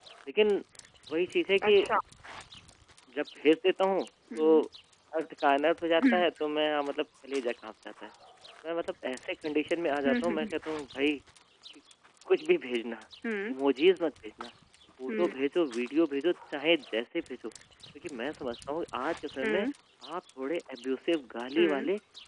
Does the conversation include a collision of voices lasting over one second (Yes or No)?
No